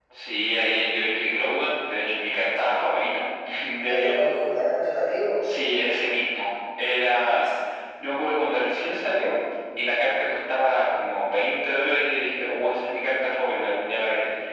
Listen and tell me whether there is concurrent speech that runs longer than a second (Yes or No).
No